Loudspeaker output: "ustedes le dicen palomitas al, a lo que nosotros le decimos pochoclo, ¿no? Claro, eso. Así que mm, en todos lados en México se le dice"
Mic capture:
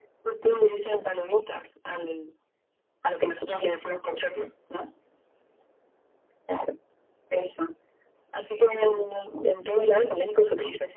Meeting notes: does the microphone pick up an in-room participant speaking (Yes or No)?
No